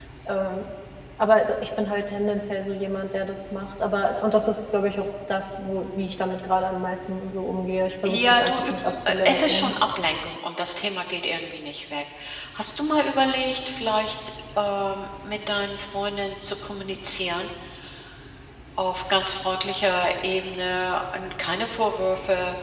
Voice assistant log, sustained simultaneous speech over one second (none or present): present